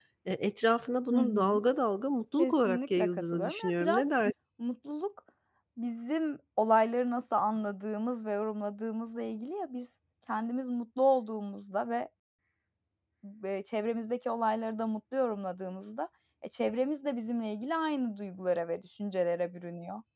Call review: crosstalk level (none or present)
present